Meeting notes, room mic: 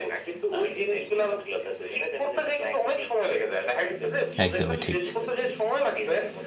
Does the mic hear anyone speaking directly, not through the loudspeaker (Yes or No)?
Yes